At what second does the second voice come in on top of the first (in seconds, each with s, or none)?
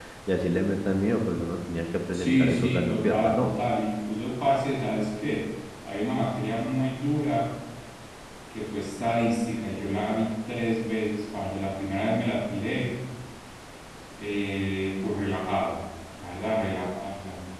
2.1 s